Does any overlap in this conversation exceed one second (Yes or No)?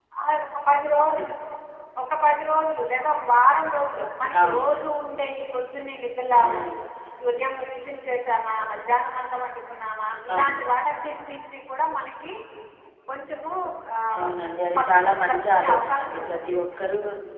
Yes